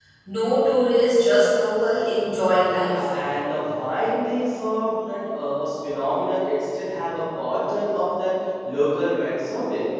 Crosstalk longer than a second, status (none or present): none